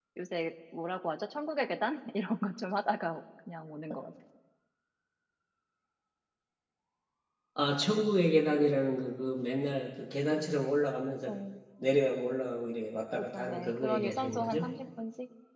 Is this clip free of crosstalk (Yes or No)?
No